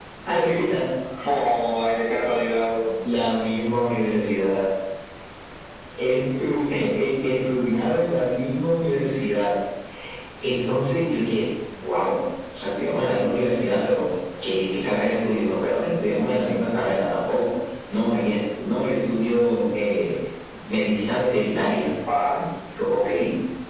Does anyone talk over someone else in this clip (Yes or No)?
No